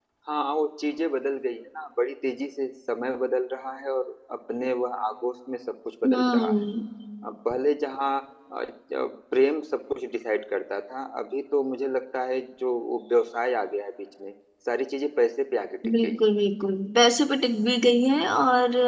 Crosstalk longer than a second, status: none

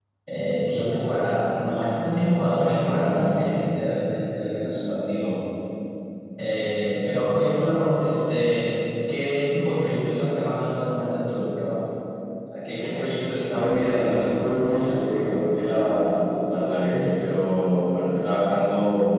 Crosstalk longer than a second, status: present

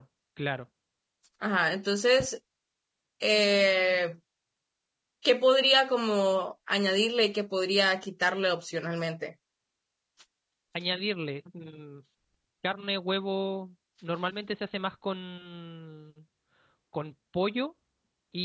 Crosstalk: none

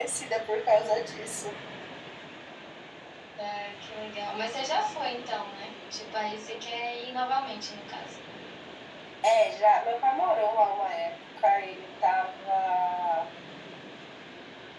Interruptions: none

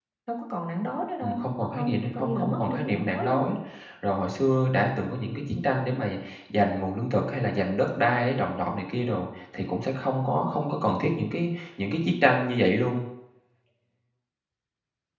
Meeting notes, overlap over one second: present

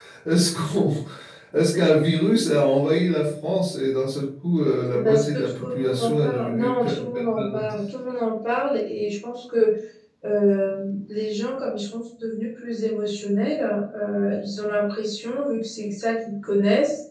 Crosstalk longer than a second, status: present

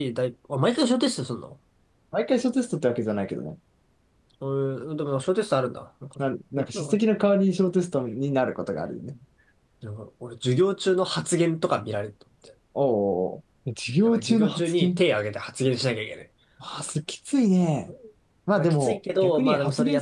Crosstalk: present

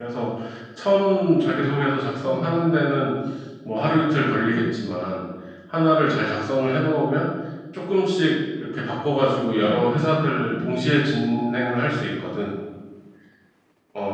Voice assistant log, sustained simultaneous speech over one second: present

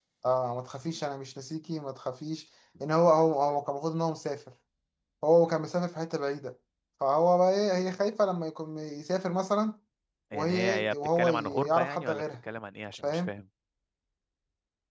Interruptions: present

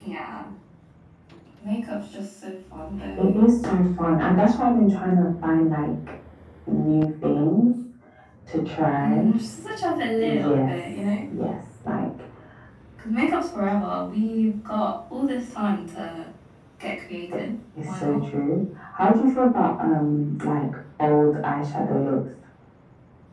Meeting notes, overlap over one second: none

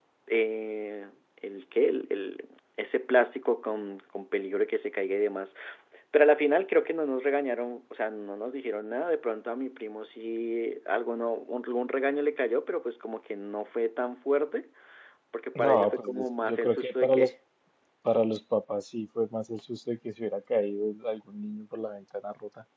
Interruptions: present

